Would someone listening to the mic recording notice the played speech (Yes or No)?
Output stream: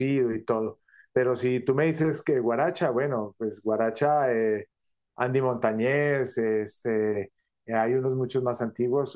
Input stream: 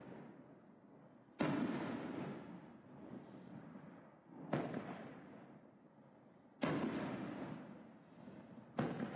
No